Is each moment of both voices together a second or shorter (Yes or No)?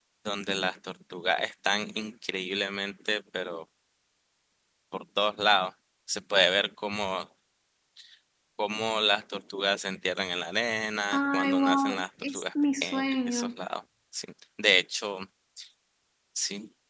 No